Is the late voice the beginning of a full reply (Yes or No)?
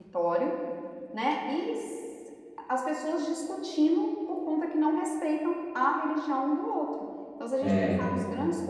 No